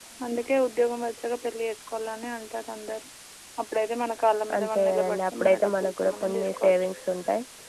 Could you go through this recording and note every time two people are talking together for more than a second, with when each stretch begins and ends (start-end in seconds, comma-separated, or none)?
4.6-6.7